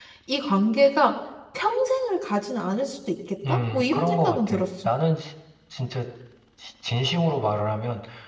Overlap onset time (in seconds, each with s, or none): 3.4 s